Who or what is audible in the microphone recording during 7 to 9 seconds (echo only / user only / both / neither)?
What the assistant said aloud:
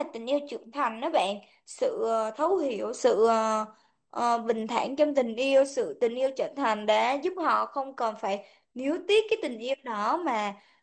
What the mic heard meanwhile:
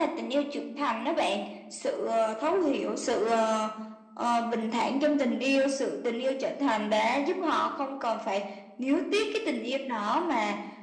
echo only